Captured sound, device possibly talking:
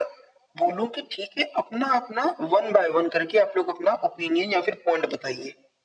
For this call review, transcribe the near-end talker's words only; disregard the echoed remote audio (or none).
none